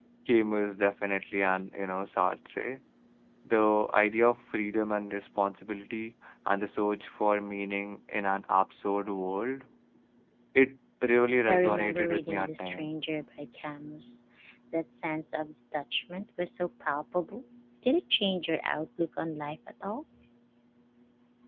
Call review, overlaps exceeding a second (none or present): present